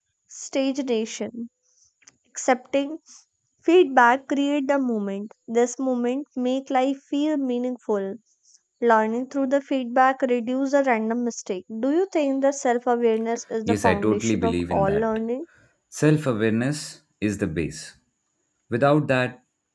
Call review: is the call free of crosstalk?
No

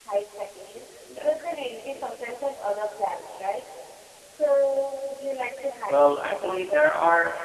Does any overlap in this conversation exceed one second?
Yes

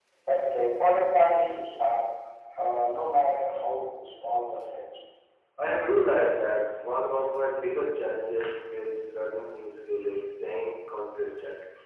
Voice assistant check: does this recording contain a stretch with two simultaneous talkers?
No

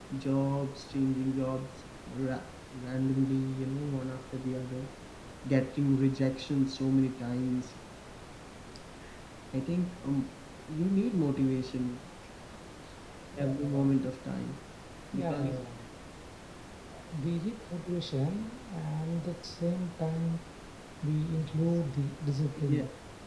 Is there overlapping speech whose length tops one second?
No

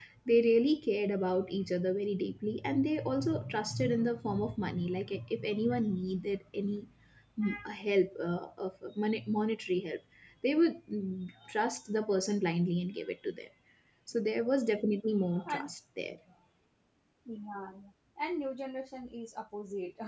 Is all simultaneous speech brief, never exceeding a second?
Yes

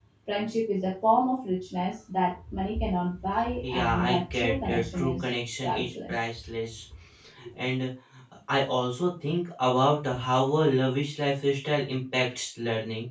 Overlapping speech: Yes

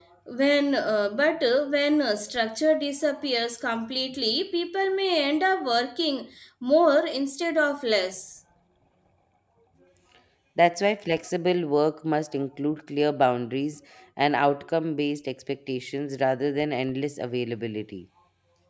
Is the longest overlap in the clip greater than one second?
No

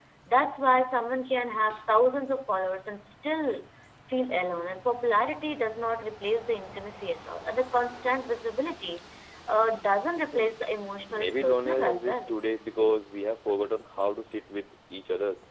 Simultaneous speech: Yes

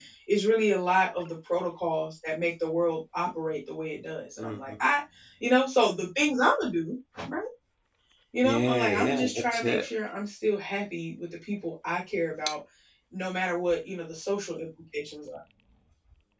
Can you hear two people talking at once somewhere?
Yes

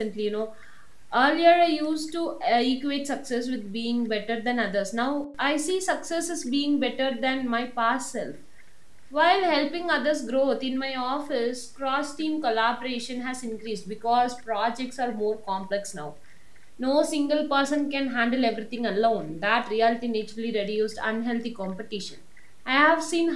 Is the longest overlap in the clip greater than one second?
No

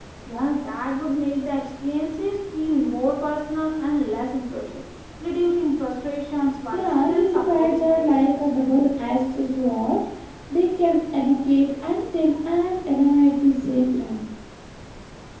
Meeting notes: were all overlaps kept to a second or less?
No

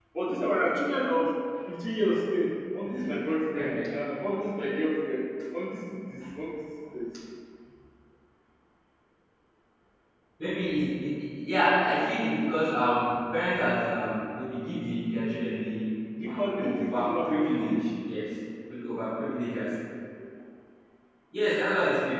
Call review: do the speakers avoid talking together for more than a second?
No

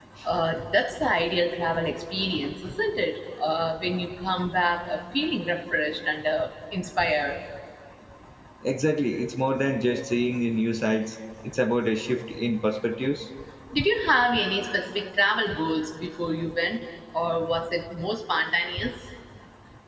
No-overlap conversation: Yes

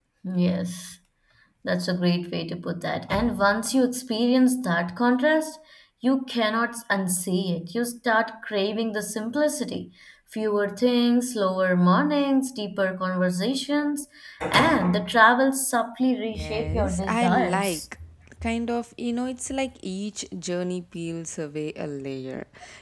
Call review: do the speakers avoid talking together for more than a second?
No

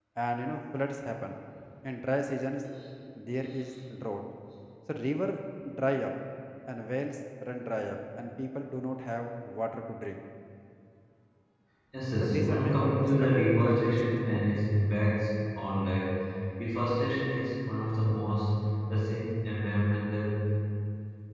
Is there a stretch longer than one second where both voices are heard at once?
Yes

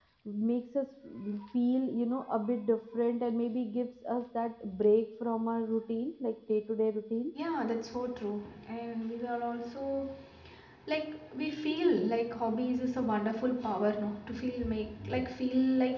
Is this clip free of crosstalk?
Yes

